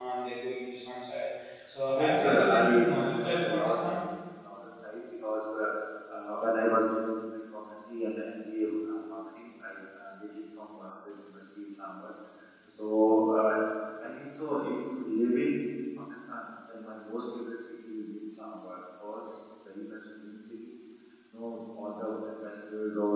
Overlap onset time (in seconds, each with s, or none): 1.9 s